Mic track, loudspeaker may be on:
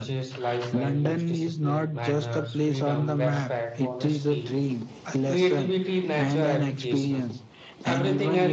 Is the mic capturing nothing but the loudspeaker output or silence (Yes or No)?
Yes